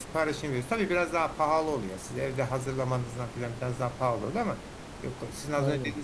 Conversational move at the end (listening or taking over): listening